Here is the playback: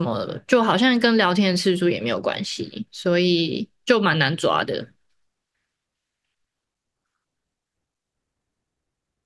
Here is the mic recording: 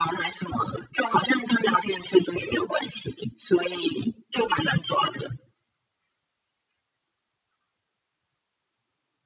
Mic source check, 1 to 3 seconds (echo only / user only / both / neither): echo only